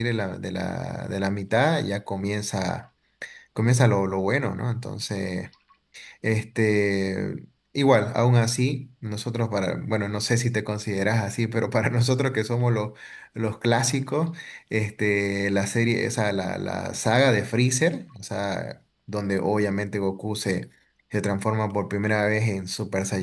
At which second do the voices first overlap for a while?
none

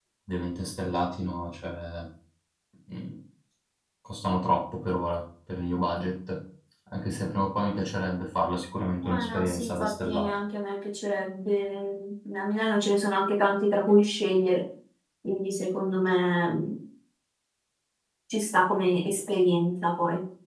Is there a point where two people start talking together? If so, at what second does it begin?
9.0 s

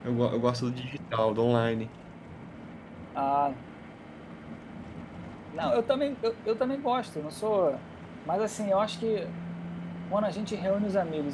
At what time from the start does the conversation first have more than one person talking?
none

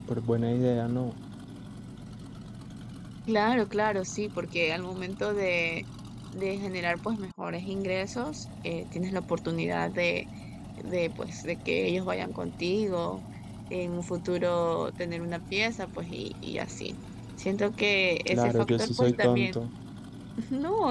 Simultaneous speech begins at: 18.3 s

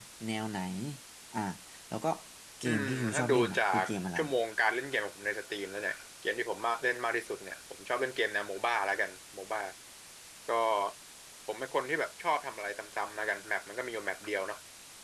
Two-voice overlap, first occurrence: 2.6 s

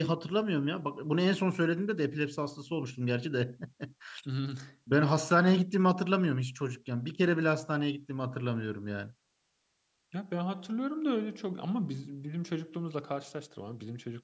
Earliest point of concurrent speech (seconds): none

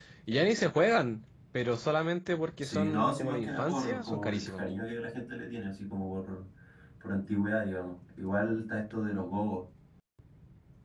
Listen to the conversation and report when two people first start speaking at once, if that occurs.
2.6 s

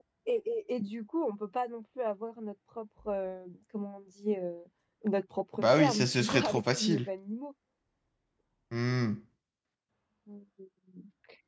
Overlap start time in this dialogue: 5.6 s

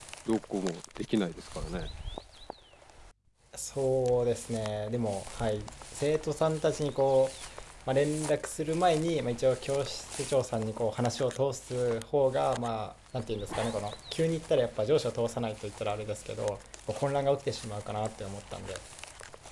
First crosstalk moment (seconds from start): none

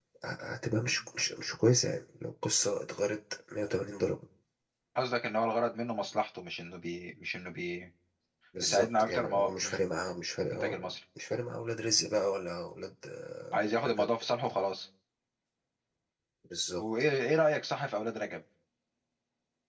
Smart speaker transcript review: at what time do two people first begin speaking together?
8.6 s

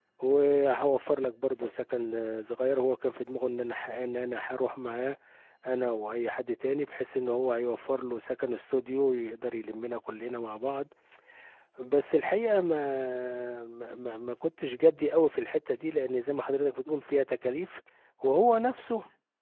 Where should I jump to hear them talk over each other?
none

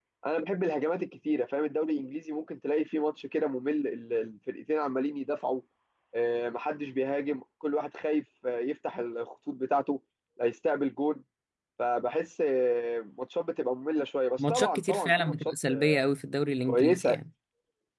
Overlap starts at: 14.5 s

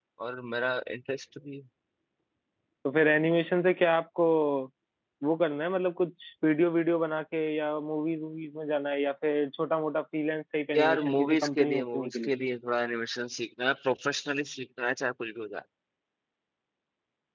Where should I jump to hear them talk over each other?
10.7 s

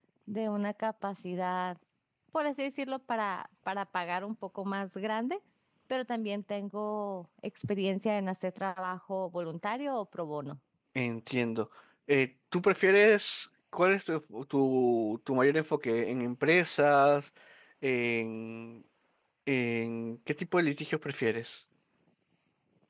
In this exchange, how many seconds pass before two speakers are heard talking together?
none

